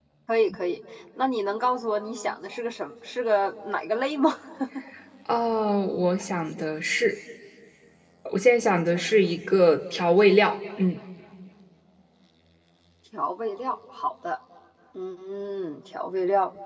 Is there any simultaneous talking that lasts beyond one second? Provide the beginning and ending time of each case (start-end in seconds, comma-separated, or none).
none